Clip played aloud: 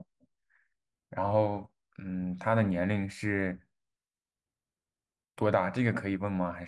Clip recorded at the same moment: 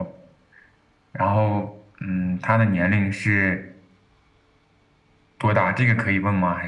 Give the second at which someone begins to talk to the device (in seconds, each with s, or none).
none